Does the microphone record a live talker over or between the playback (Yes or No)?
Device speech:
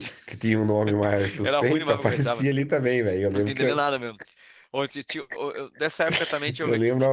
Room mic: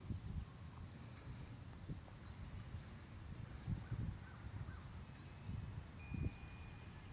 No